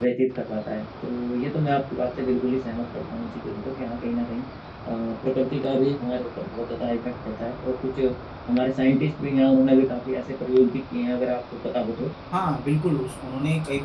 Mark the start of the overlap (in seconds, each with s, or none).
none